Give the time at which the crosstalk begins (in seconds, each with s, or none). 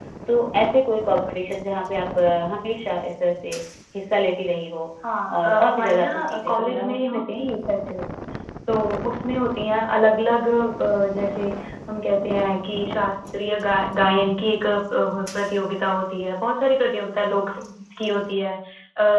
5.4 s